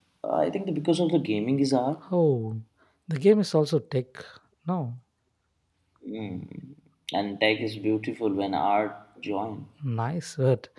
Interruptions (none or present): none